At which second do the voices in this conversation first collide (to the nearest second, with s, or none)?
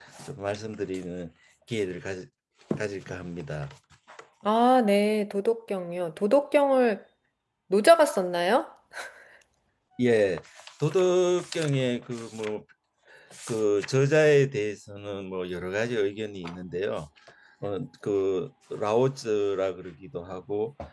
none